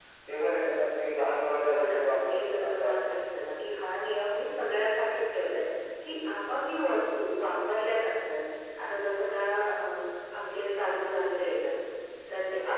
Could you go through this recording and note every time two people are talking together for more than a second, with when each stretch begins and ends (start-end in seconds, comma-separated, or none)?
1.7-3.1